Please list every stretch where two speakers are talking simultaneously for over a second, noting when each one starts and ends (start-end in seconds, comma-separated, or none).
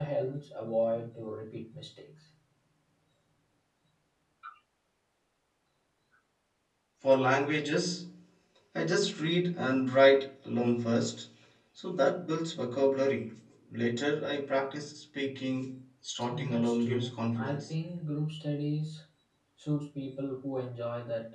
16.3-17.7